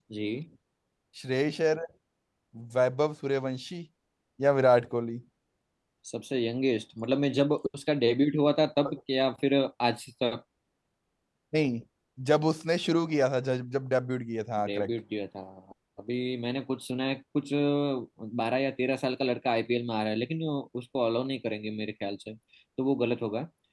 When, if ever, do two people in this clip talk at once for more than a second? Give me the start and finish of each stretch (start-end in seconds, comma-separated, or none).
none